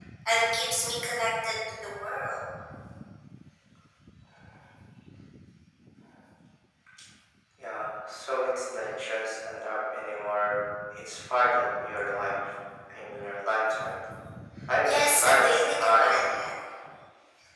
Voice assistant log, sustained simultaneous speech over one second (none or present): present